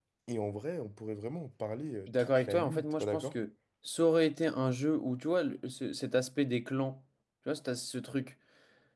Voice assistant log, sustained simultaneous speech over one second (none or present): present